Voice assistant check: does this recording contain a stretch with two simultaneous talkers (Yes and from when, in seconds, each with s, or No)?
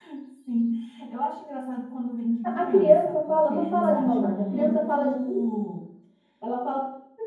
Yes, from 2.4 s